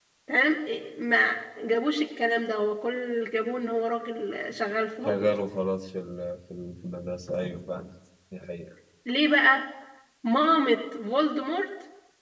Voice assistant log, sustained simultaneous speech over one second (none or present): none